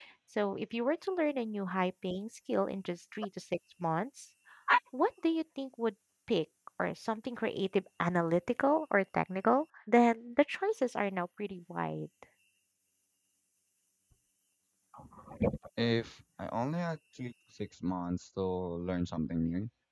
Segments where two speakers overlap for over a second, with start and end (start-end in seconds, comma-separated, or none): none